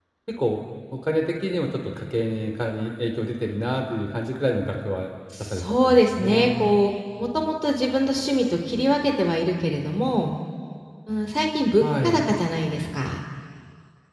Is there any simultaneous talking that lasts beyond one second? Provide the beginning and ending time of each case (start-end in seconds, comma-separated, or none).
5.4-6.6